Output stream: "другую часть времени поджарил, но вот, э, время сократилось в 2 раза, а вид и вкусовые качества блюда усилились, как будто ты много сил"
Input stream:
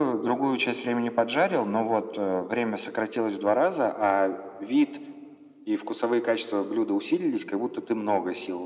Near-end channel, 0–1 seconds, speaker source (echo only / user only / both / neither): echo only